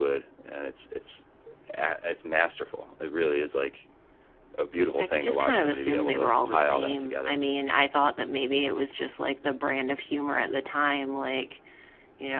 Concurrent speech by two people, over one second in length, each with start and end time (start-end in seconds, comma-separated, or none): 5.0-7.4